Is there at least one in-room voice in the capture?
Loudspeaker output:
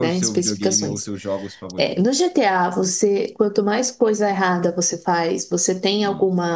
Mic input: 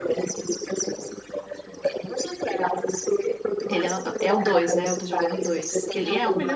Yes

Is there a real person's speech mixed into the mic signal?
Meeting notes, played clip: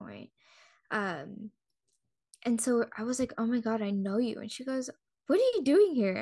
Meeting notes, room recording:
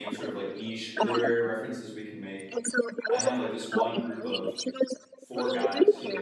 Yes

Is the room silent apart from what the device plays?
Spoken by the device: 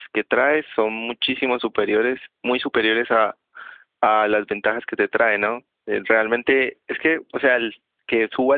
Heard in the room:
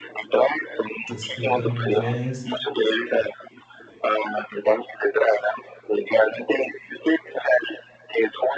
No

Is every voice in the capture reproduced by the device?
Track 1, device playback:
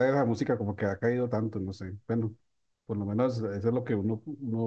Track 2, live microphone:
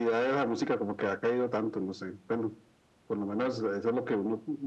Yes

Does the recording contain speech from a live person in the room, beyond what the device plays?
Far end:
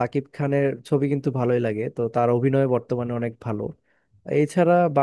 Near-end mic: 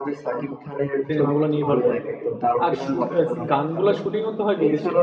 Yes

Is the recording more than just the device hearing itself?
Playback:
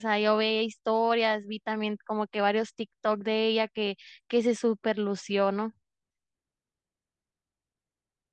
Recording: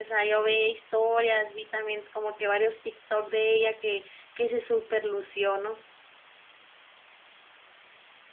No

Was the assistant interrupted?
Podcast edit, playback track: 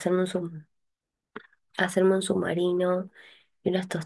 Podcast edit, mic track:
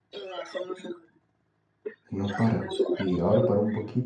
Yes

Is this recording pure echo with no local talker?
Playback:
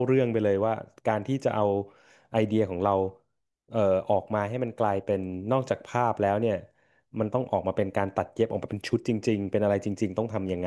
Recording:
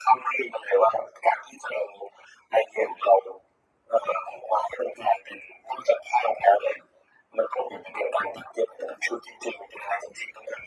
Yes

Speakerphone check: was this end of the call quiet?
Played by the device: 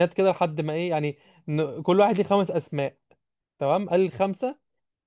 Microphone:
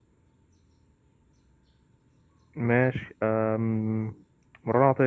No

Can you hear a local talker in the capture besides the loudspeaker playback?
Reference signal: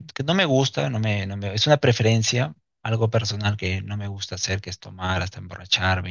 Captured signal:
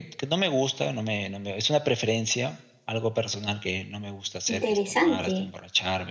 Yes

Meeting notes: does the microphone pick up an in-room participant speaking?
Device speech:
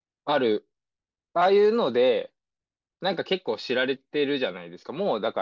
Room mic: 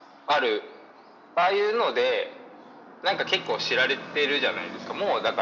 No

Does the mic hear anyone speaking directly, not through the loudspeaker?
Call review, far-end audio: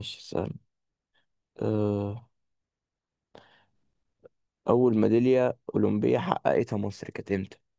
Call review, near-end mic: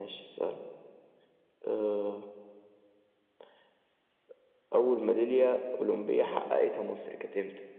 No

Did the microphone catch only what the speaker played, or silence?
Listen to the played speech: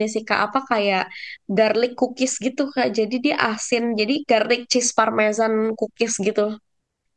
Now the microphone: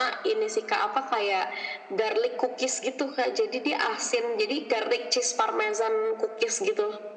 Yes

